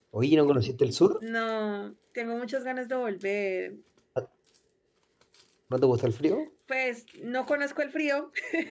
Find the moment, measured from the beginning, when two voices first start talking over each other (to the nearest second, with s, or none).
none